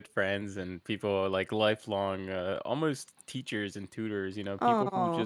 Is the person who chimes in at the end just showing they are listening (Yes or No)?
Yes